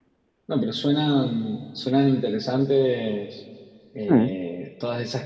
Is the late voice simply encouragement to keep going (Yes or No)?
Yes